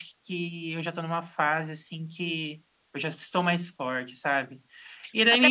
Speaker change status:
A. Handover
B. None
A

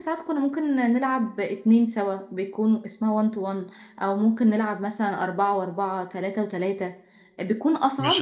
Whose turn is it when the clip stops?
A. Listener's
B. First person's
A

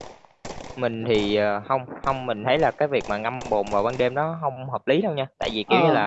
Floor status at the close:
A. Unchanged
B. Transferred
A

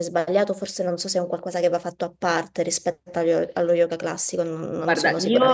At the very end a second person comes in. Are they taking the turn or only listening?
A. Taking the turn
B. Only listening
A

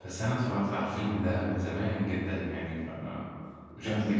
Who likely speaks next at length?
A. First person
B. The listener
B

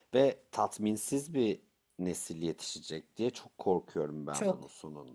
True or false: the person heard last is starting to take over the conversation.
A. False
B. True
B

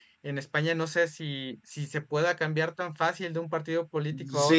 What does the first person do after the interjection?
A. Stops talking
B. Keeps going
A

